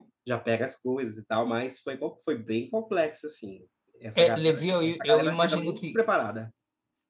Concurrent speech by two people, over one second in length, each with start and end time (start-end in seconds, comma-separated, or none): 4.2-6.0